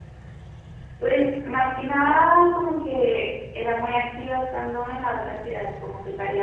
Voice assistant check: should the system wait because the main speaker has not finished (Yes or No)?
Yes